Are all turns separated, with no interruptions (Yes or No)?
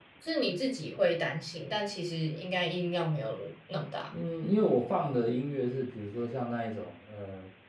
Yes